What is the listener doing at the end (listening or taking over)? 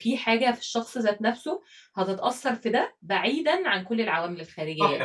taking over